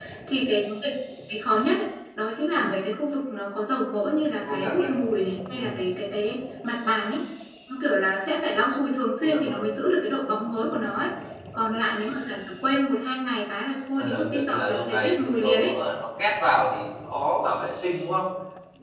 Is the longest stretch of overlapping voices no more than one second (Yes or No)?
No